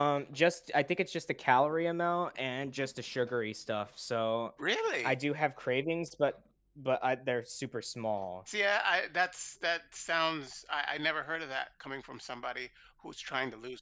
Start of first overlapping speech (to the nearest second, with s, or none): none